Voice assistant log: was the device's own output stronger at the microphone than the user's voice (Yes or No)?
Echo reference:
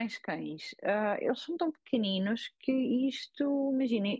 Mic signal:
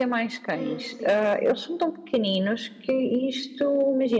Yes